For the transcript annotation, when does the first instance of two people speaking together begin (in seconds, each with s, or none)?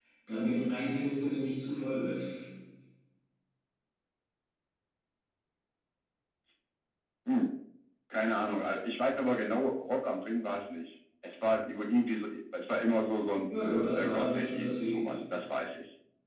13.9 s